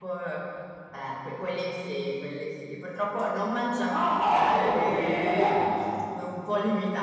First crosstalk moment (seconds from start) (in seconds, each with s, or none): 3.9 s